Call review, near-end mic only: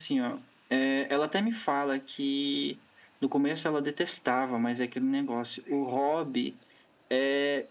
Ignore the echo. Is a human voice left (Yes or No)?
No